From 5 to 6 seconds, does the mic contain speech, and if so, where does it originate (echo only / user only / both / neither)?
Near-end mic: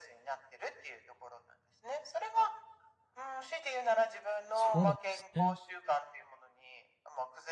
both